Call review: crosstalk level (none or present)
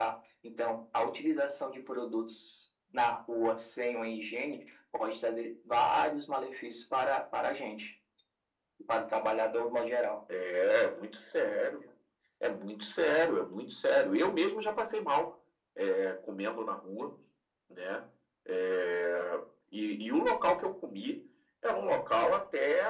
none